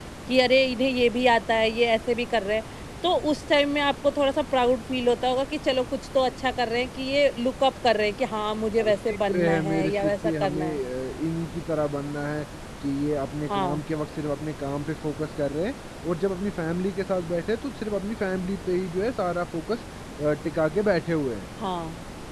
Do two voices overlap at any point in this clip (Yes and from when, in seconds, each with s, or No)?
Yes, from 8.8 s